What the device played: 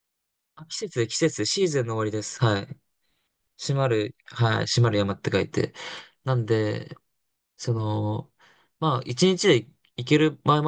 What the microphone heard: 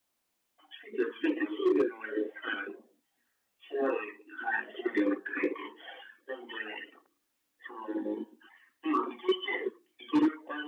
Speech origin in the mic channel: echo only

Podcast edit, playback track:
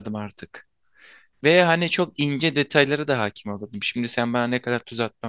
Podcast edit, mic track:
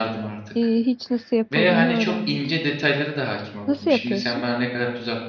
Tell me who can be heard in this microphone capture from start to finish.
both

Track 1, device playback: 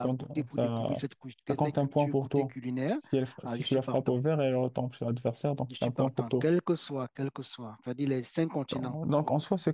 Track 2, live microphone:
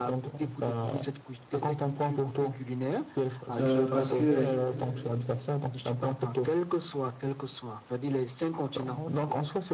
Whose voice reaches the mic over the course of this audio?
both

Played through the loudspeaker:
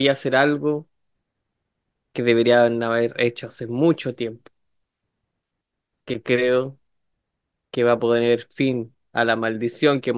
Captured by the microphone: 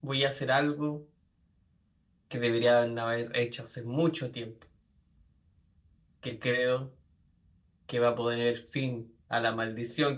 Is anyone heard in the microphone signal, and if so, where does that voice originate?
echo only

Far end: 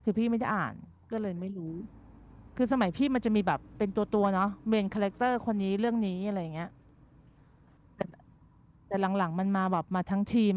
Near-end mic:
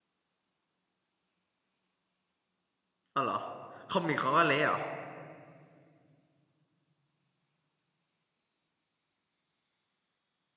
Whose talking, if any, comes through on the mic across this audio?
user only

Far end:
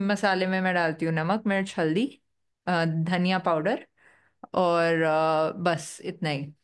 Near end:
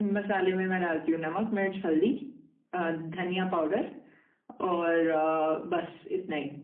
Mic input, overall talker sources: echo only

